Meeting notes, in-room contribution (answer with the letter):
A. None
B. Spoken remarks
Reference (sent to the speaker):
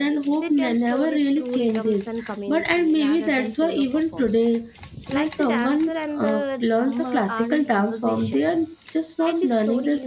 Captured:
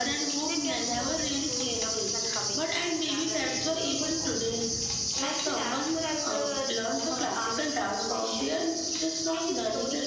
A